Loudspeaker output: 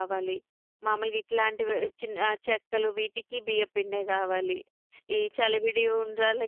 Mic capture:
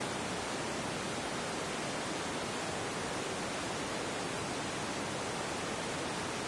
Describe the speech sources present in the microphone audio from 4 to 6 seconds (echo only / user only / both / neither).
neither